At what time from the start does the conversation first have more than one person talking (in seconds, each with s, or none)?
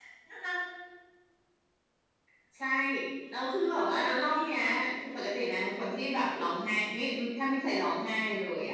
3.4 s